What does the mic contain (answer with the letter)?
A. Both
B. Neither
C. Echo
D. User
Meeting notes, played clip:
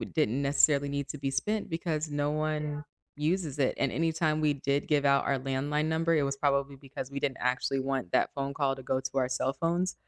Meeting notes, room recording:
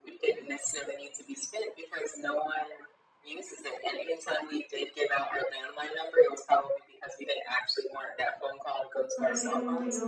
A